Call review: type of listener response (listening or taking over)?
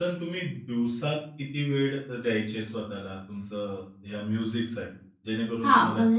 taking over